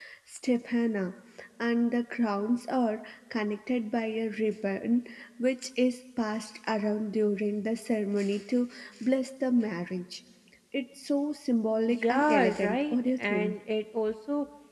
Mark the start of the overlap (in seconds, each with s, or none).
11.9 s